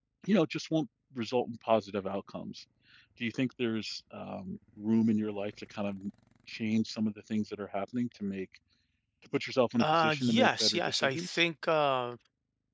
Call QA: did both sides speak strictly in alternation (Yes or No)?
No